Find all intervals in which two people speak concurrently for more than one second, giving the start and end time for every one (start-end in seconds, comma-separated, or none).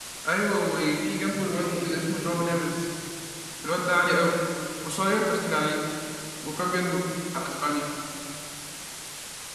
1.2-2.7